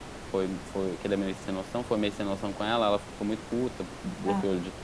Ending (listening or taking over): listening